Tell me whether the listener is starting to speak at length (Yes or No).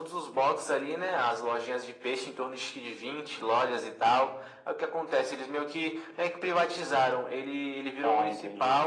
No